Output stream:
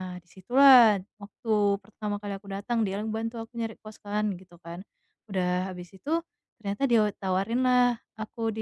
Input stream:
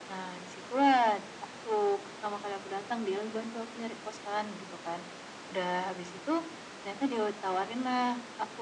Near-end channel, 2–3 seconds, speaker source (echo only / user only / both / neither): echo only